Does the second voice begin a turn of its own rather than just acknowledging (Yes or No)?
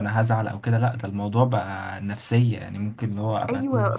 Yes